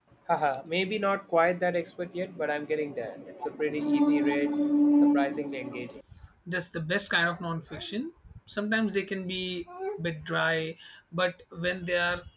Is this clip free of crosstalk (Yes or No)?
Yes